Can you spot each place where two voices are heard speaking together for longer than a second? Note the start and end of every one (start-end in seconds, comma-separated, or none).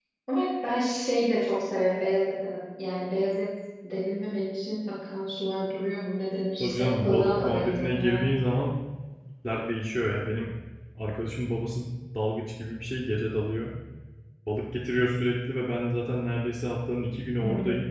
6.6-8.3